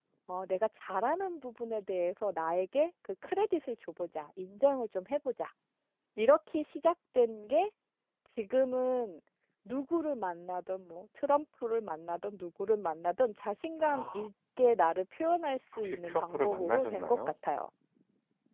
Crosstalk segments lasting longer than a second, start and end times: 15.8-17.2

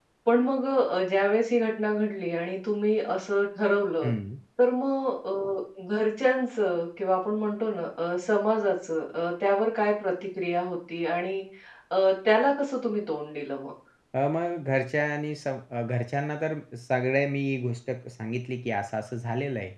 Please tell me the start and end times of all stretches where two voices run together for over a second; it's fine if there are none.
none

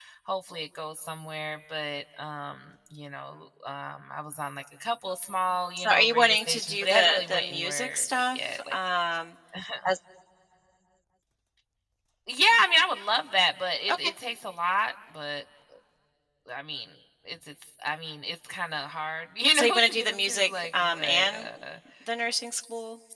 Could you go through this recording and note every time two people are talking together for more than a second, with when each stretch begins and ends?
5.8-8.7, 19.5-21.5

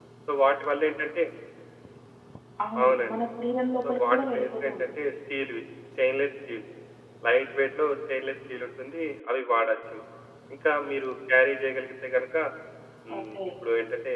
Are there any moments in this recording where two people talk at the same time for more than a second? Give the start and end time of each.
3.8-5.1

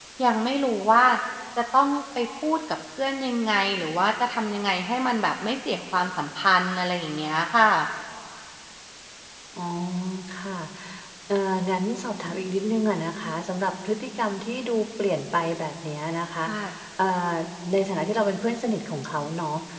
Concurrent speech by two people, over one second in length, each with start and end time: none

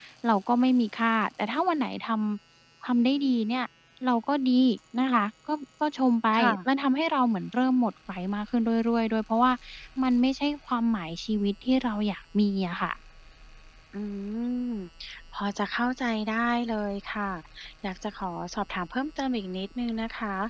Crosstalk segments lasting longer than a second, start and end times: none

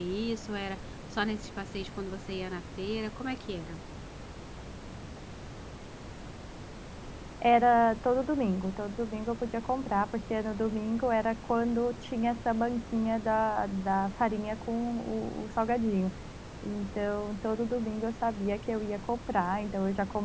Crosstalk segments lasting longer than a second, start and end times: none

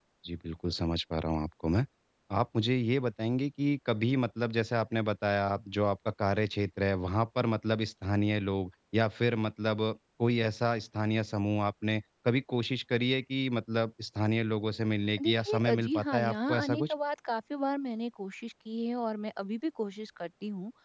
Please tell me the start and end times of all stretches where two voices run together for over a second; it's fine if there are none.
15.2-16.9

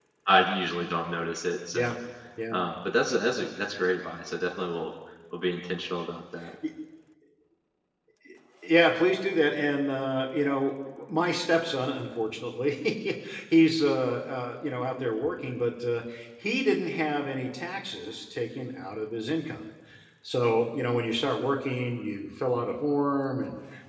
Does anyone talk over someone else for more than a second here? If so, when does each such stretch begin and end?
none

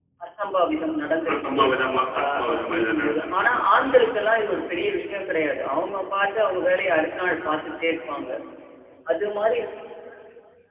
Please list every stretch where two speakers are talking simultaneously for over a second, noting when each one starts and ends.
2.2-4.0

